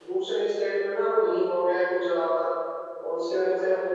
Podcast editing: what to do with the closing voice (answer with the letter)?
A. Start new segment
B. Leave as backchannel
B